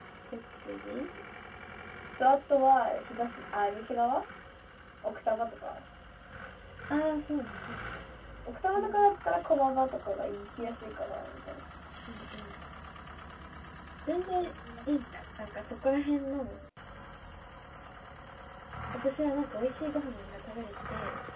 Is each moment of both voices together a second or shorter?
Yes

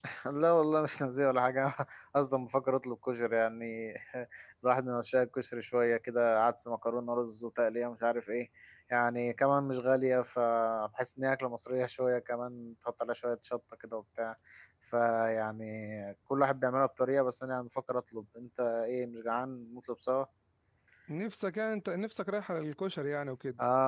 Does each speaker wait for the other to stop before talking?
Yes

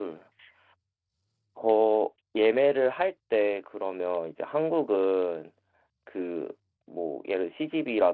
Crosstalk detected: No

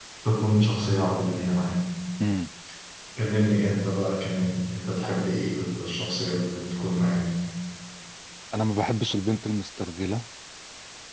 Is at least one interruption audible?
No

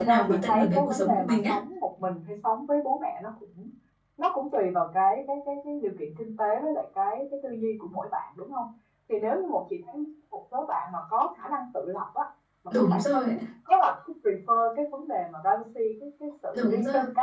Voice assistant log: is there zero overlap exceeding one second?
No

